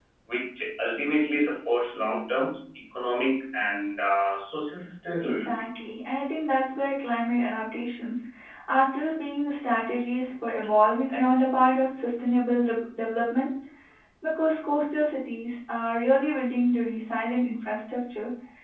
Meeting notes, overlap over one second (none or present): none